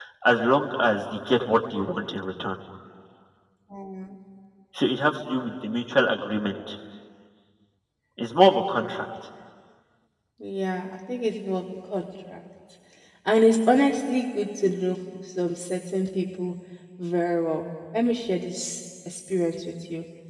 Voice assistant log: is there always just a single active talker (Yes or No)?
Yes